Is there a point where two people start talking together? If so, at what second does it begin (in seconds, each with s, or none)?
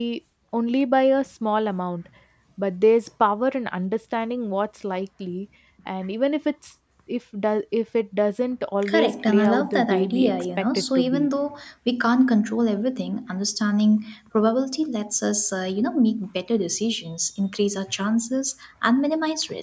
8.8 s